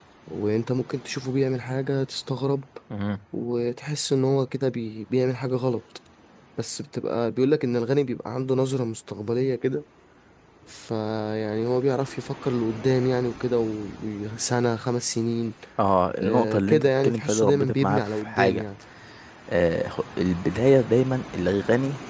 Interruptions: present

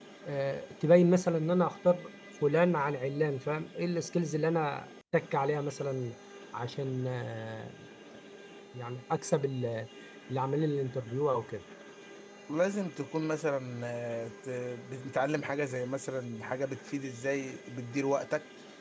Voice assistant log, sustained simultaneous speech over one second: none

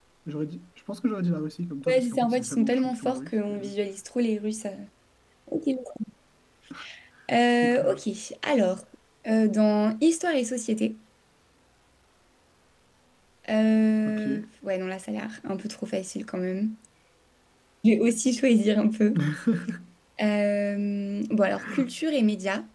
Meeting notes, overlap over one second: present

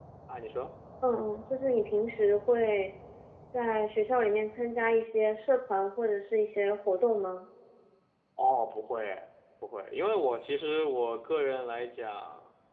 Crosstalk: none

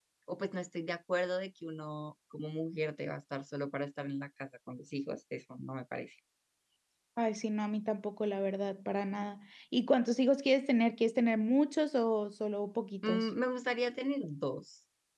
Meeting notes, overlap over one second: none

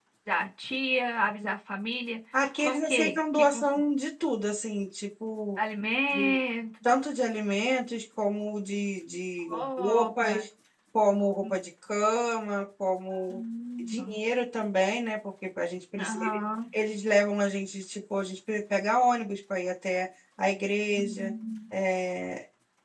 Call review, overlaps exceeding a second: present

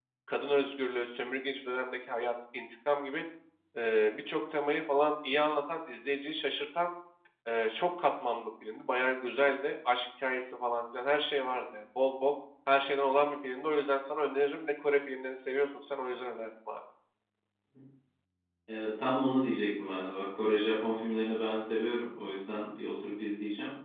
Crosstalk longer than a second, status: none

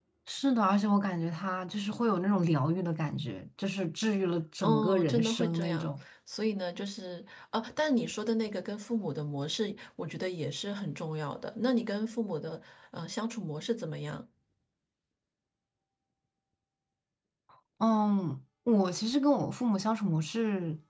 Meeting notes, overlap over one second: present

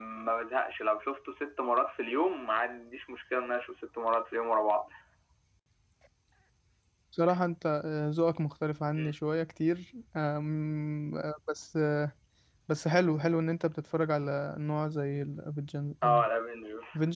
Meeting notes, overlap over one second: none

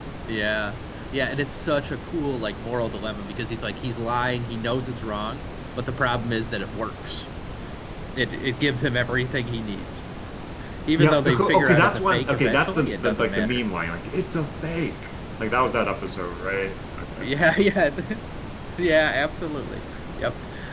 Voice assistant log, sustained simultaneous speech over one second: present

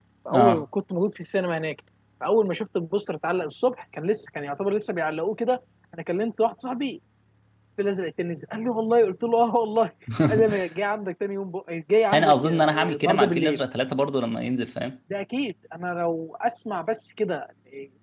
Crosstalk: present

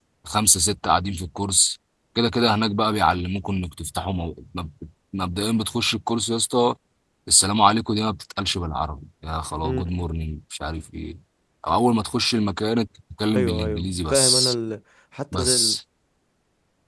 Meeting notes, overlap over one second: present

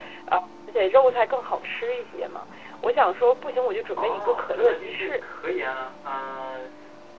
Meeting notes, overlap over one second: present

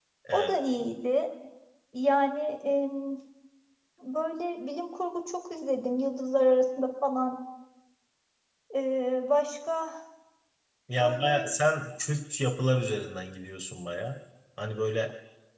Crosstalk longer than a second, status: none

